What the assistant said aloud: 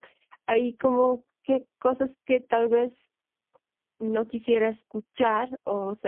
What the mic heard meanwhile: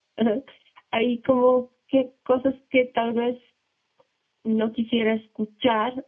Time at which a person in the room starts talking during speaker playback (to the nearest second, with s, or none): none